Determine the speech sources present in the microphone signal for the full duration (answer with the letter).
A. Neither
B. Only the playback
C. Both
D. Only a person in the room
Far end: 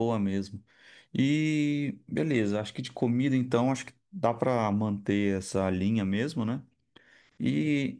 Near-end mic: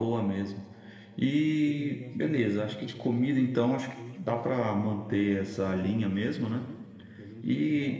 C